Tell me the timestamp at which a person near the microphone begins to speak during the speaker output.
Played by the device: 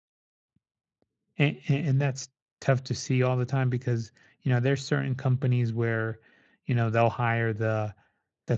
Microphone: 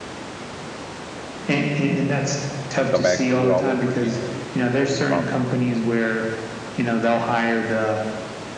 3 s

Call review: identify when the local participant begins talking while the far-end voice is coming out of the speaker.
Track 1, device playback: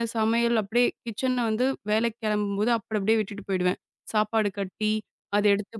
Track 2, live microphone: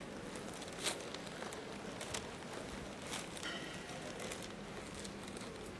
none

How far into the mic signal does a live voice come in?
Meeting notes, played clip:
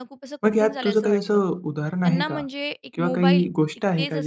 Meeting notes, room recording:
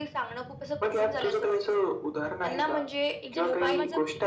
3 s

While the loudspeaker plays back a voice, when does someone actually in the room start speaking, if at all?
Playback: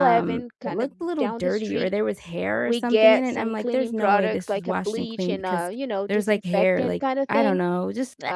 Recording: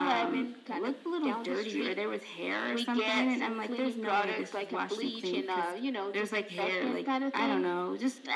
none

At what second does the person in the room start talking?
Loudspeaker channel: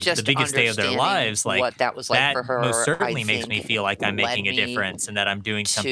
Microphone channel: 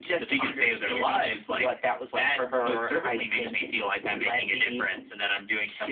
none

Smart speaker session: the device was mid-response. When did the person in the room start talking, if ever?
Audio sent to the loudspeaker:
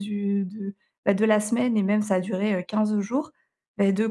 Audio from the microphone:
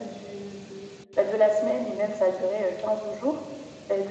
none

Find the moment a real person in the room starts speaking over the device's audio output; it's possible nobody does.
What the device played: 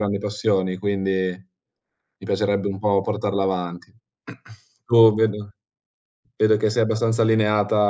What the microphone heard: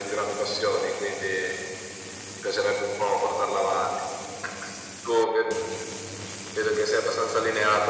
none

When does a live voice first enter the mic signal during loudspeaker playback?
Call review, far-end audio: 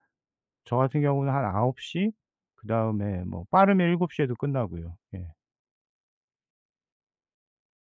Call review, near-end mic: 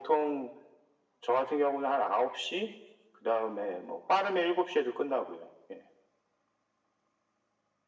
none

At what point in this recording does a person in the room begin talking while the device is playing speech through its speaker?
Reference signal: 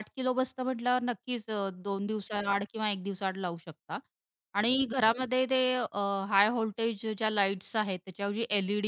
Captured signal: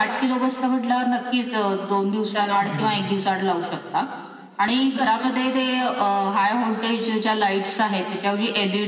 3 s

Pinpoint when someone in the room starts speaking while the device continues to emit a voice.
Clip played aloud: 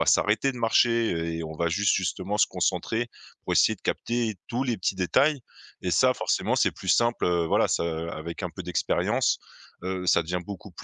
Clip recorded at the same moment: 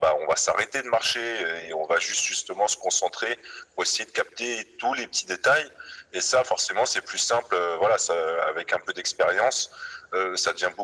none

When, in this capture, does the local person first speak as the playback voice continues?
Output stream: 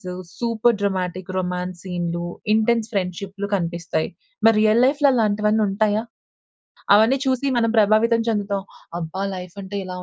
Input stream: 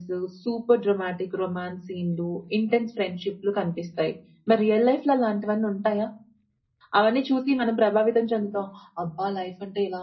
none

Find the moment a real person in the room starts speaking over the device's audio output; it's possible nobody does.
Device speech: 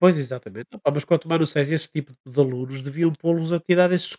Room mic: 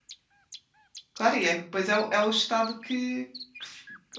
1 s

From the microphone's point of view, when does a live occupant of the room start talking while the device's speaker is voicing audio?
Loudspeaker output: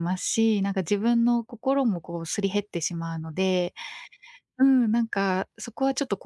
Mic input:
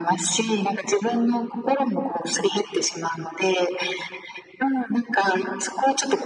none

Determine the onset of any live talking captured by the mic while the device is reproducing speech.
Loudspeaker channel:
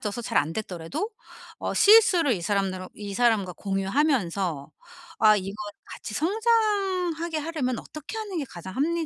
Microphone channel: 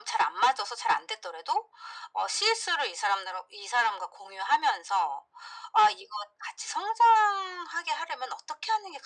none

